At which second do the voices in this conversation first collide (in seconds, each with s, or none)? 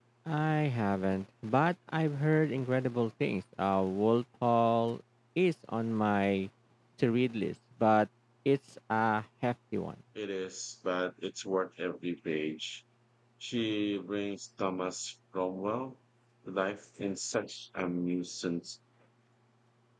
none